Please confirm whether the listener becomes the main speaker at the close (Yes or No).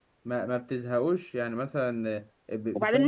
Yes